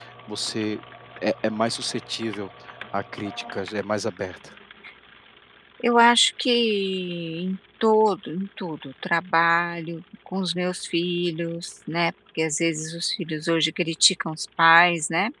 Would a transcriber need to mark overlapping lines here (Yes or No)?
No